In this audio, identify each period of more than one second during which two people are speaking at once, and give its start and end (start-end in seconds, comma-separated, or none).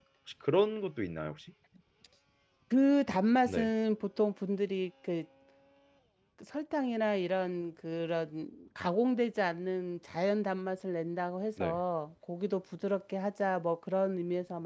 none